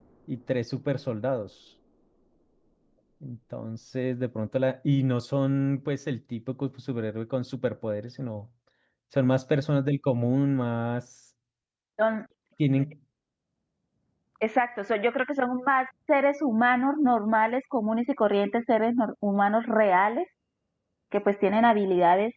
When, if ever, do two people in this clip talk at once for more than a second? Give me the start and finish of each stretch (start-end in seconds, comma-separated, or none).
none